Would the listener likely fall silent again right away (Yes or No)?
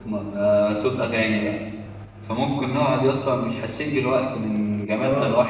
Yes